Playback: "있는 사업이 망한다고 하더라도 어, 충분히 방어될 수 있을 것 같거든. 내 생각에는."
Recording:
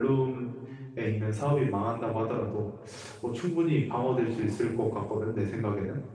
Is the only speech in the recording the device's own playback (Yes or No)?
Yes